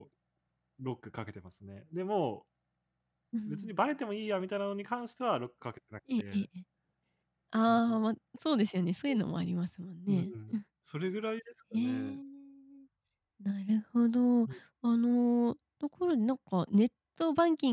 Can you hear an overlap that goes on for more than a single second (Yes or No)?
No